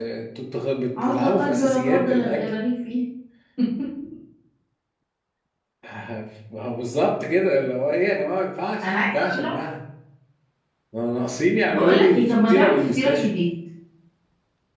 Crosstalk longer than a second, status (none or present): present